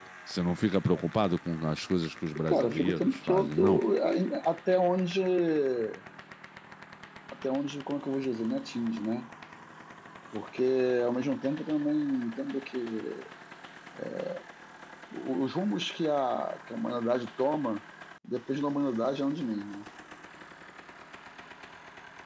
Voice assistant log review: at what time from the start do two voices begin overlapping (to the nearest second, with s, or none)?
2 s